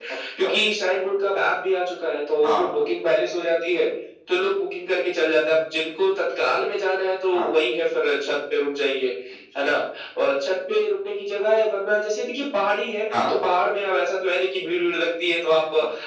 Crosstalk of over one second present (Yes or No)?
No